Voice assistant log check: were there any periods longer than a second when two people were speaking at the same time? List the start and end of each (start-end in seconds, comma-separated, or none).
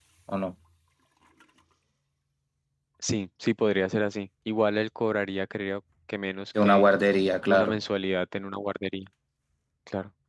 none